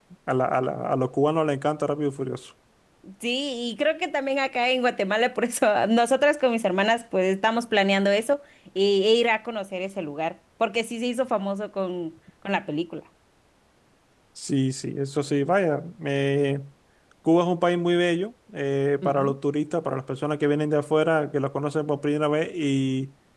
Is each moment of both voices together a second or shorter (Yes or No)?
Yes